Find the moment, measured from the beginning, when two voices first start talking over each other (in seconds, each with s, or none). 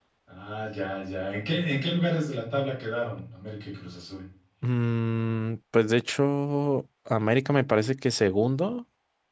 none